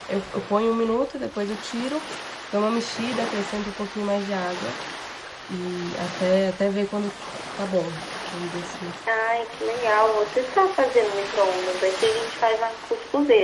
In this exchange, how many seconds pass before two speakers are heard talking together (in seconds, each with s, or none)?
none